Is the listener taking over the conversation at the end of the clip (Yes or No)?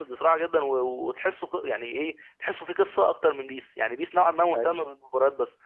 No